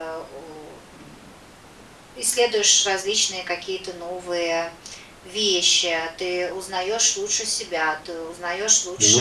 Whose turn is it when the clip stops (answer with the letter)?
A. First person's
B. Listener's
A